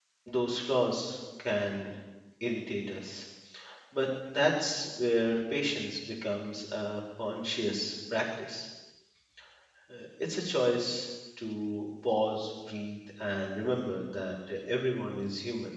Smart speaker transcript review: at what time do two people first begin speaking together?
none

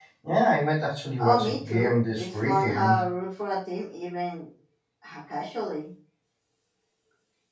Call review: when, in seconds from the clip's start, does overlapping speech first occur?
1 s

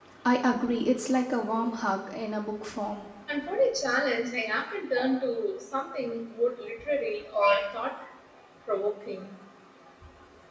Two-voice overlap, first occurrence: none

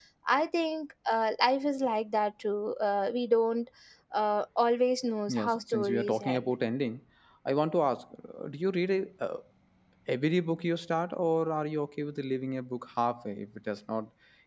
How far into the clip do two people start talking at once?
5 s

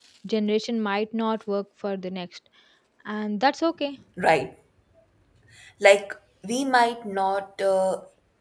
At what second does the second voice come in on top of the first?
none

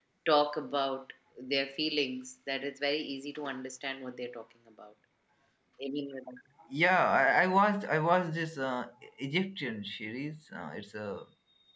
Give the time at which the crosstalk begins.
none

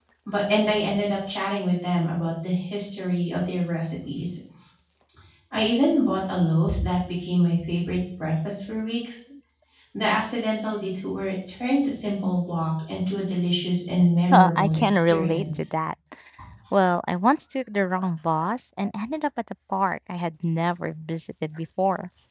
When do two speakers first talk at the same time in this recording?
14 s

